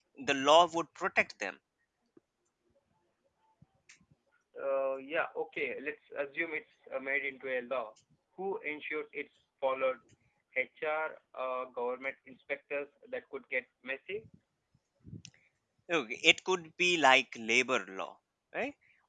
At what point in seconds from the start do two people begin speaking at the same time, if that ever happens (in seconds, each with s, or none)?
none